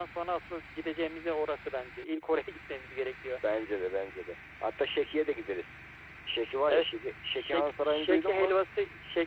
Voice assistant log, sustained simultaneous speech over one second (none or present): present